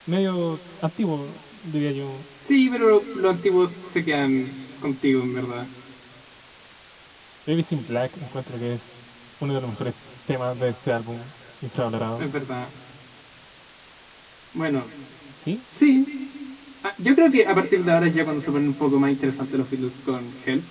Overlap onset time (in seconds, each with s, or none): none